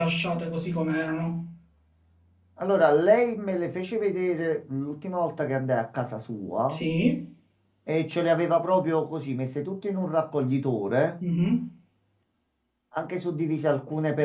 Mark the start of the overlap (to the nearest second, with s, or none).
none